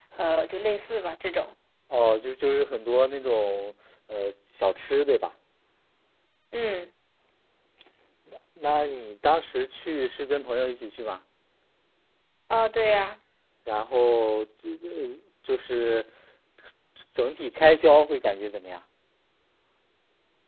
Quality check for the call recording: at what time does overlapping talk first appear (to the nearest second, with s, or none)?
none